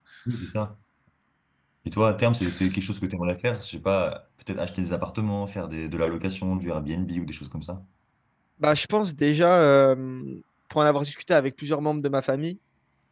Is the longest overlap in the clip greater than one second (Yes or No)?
No